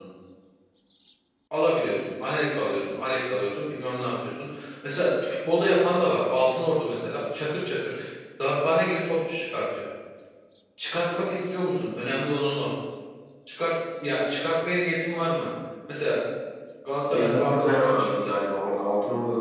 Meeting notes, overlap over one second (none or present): present